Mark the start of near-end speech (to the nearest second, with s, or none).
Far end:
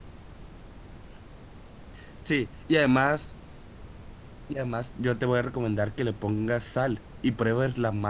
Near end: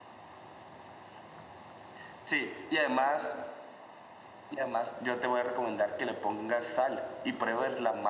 none